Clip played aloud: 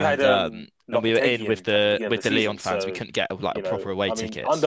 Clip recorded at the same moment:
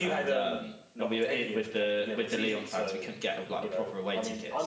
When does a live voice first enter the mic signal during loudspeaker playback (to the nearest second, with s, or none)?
none